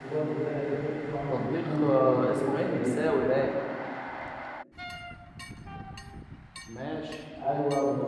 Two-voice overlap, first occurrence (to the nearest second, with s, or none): 1 s